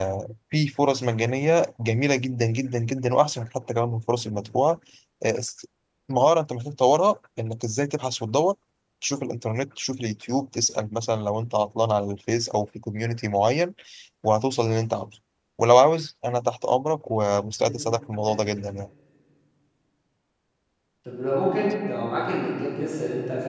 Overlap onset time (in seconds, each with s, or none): none